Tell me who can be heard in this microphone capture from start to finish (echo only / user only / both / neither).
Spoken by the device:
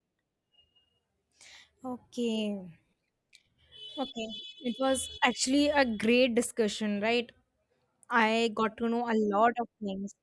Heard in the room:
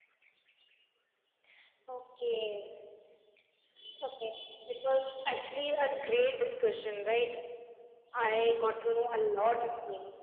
echo only